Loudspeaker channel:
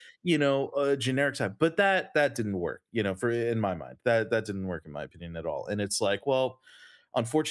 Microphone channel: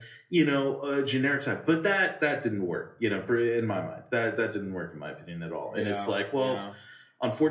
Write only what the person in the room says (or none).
yeah, yeah.